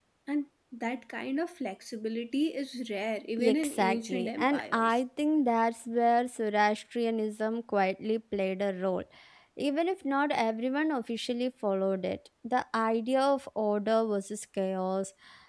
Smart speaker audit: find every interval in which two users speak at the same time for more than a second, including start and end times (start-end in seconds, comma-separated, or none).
3.4-5.0